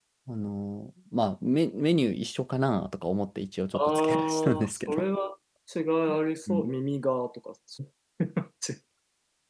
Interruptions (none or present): present